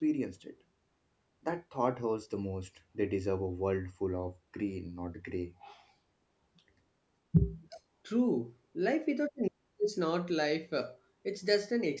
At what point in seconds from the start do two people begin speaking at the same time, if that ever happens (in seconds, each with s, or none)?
none